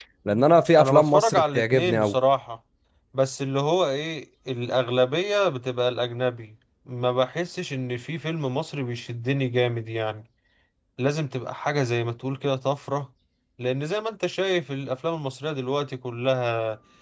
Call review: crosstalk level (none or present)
present